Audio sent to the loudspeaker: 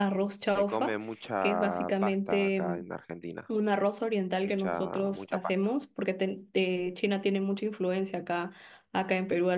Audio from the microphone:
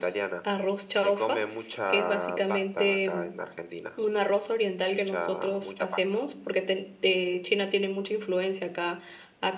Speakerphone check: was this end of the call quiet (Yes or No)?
Yes